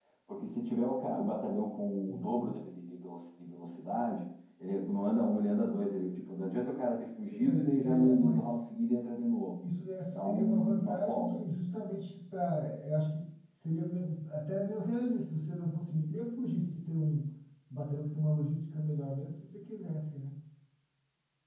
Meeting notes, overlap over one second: present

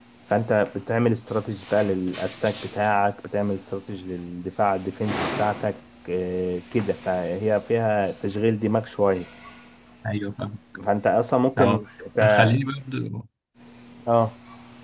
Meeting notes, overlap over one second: none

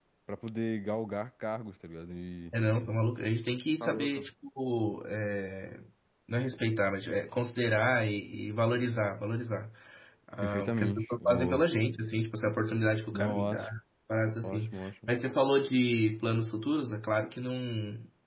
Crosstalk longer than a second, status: present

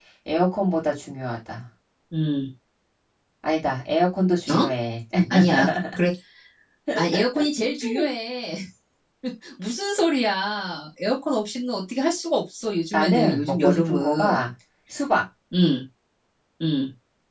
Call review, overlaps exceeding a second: present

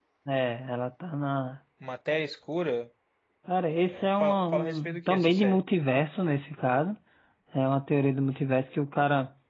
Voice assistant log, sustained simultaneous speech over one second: present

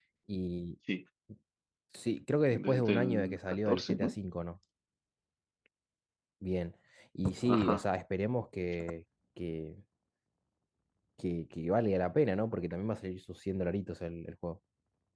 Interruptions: present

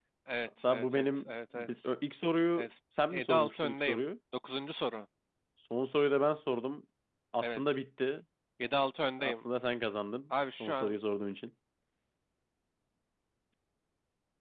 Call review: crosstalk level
present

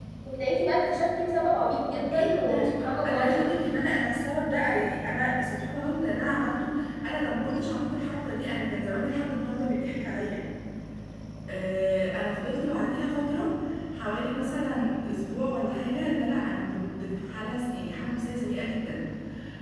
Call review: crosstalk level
present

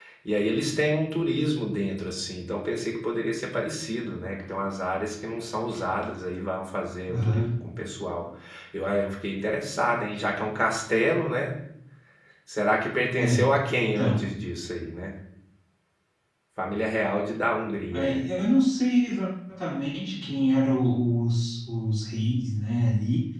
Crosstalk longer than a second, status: none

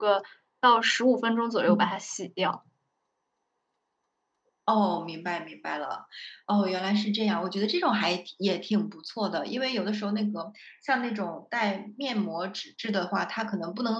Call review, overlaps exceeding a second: none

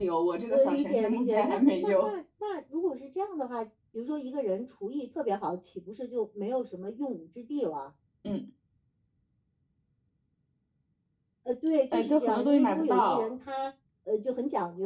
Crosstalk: present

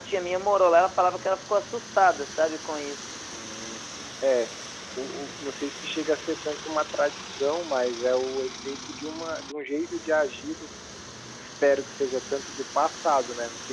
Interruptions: none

